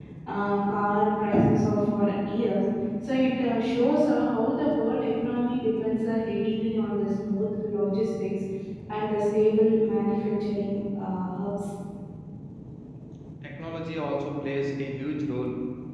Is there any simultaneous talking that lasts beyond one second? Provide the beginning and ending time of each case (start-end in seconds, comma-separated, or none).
none